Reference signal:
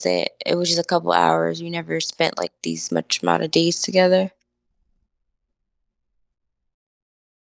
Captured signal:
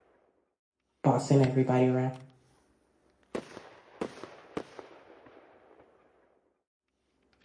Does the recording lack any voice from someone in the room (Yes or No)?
No